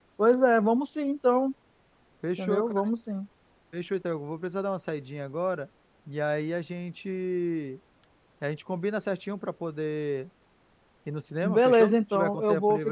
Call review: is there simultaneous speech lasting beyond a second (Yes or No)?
Yes